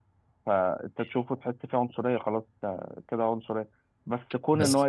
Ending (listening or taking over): listening